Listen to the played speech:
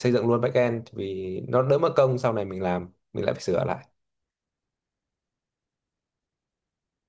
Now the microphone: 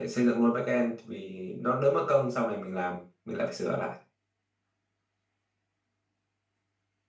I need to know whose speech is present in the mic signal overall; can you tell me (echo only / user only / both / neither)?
echo only